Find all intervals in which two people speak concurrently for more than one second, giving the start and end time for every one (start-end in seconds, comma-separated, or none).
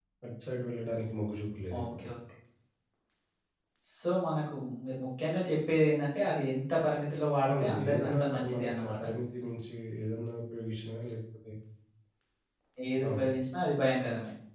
7.5-9.0